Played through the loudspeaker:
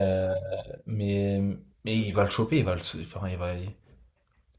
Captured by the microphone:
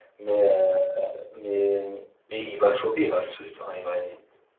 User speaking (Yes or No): No